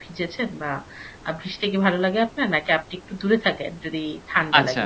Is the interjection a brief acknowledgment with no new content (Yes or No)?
No